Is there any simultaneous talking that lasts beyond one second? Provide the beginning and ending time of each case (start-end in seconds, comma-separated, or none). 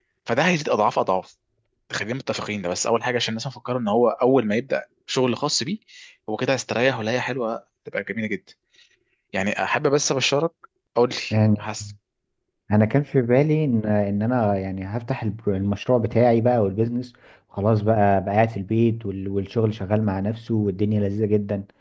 none